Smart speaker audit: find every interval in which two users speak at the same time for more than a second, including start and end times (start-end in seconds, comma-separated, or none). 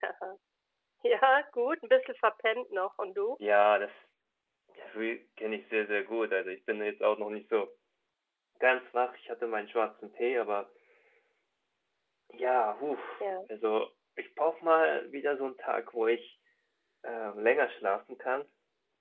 none